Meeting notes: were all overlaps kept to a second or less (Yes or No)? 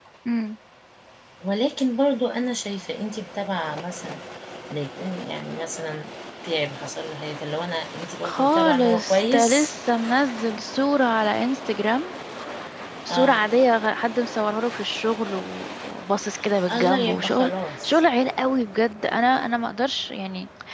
No